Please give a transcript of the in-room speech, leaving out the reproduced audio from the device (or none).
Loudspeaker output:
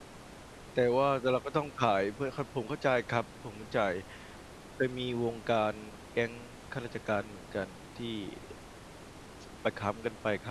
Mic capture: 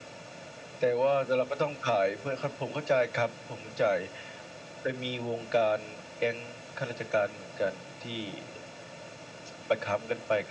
none